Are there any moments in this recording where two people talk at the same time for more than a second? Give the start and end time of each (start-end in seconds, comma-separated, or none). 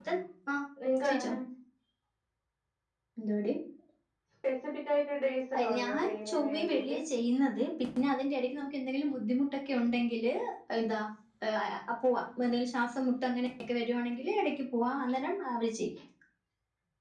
5.5-6.8